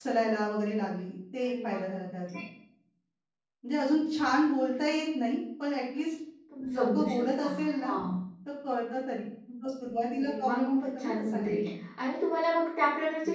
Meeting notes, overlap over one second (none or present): present